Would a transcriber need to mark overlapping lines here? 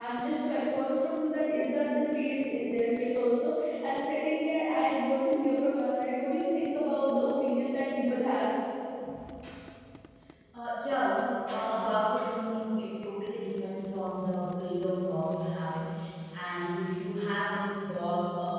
No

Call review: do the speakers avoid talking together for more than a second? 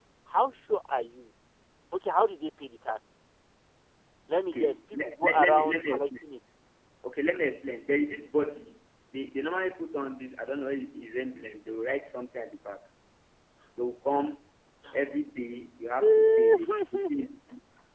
No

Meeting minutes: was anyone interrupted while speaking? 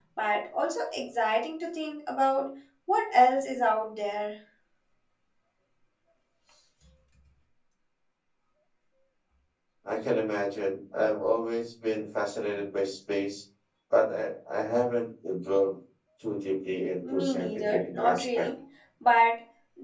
Yes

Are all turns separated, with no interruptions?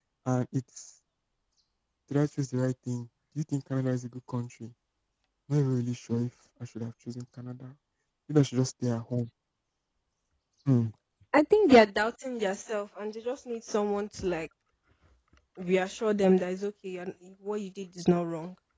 Yes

